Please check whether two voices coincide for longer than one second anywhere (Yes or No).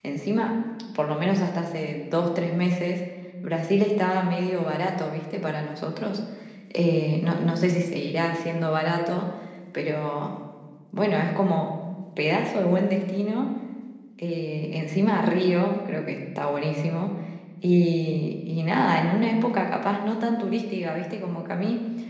No